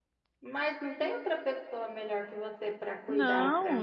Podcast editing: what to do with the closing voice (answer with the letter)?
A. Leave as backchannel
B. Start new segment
B